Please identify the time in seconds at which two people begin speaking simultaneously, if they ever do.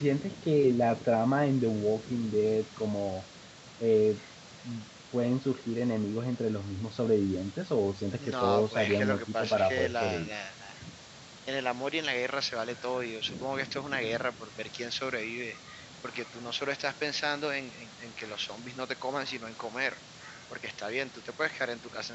8.2 s

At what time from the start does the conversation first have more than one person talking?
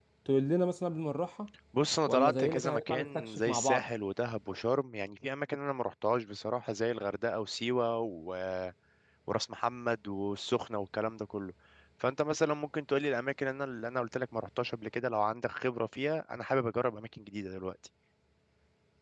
2.1 s

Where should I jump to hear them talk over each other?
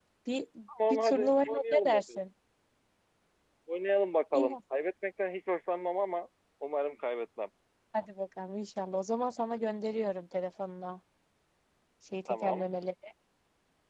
0.9 s

